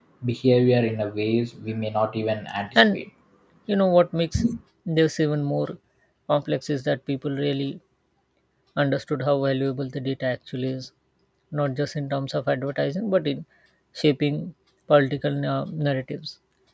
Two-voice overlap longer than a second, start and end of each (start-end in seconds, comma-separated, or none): none